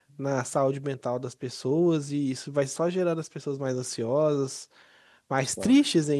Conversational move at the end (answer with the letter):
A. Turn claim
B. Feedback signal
B